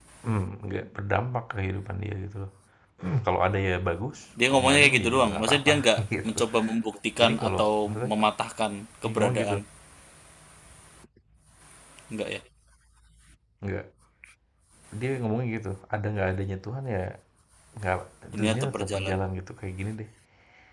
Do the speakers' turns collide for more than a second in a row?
Yes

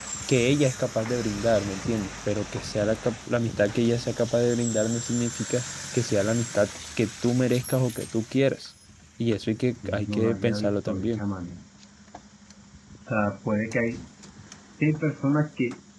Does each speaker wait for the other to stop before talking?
No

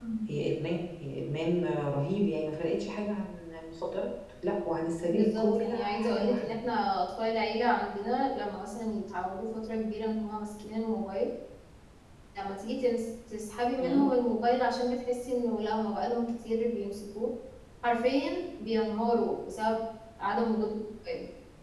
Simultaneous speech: Yes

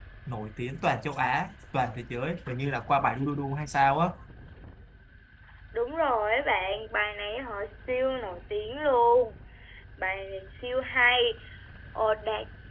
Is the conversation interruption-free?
Yes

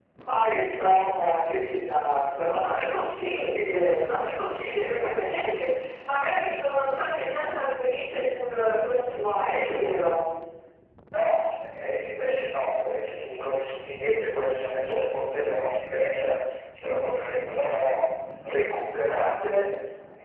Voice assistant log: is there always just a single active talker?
Yes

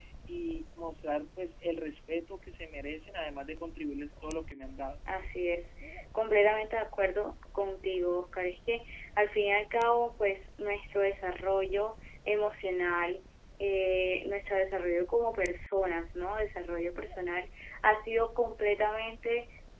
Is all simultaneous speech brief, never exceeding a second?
Yes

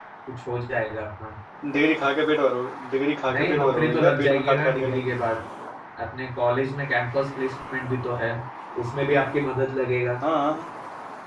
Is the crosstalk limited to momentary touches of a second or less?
No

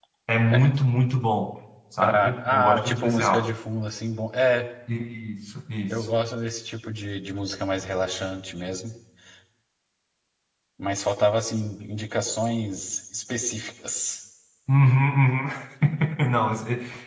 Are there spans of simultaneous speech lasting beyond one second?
Yes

